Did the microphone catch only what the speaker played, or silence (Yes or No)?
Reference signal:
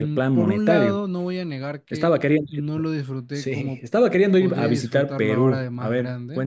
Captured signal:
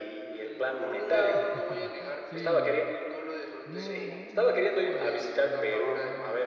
No